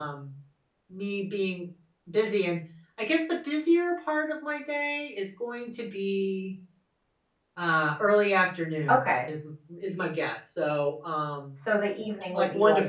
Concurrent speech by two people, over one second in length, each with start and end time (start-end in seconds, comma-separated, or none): none